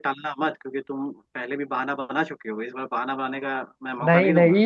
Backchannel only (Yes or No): No